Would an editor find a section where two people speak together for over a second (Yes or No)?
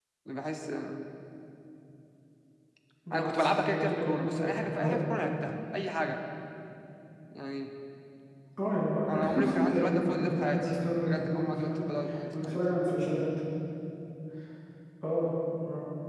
Yes